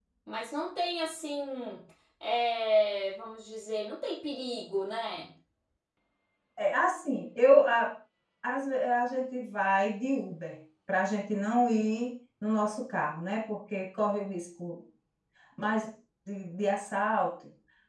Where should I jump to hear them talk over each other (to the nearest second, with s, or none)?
none